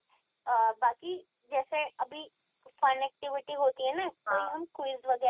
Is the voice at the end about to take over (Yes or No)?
No